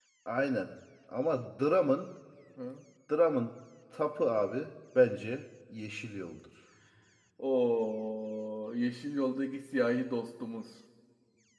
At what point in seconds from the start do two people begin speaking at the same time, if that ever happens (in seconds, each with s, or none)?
none